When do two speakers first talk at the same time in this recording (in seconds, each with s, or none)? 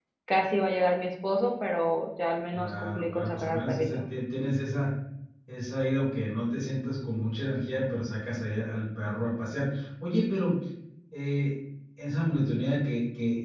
2.5 s